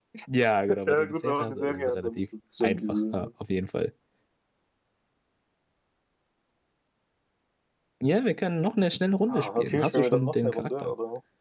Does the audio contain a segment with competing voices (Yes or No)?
Yes